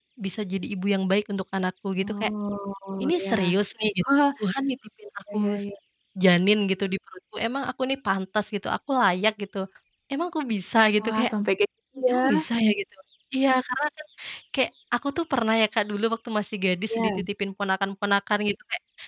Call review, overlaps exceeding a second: none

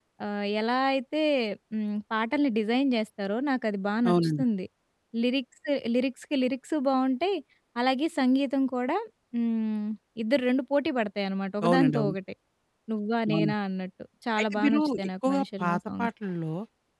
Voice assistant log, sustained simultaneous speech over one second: present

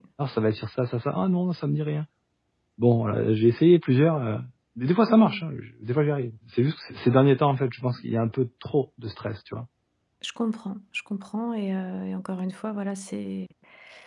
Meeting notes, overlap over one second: none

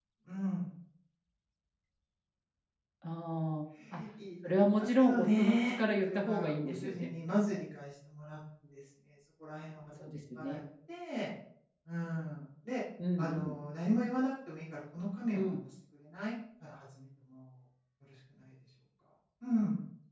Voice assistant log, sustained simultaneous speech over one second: present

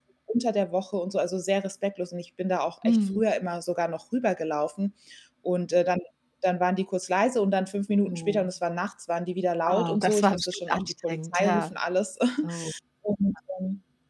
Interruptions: present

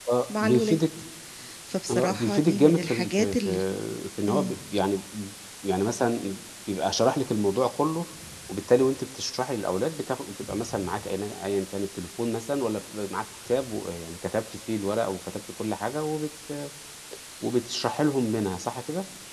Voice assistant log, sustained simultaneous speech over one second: present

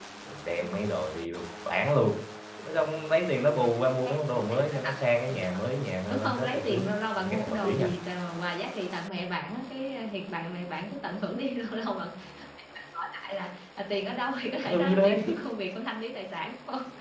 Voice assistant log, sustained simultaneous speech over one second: present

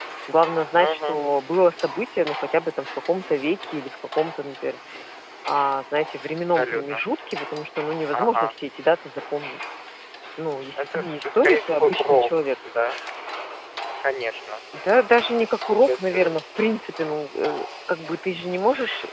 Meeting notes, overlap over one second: present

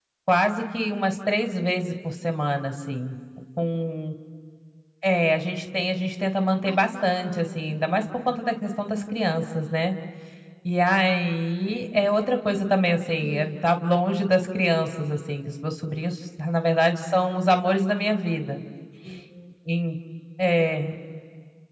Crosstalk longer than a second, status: present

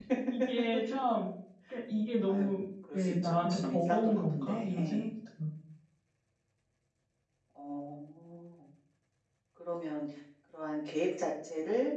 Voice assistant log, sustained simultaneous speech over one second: present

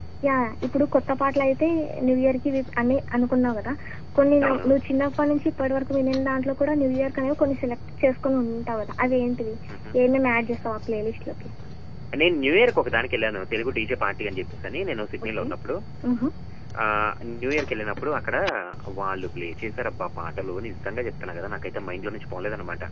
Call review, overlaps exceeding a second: none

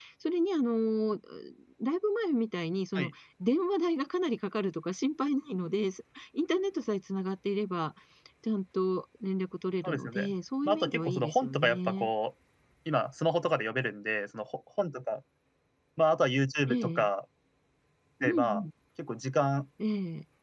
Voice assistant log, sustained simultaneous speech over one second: present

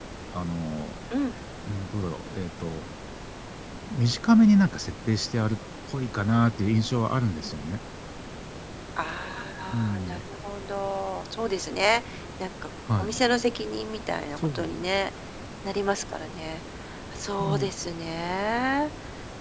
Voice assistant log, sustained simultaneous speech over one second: none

